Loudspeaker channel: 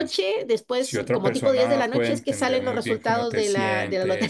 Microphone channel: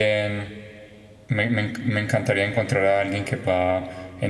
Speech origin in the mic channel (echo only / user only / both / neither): user only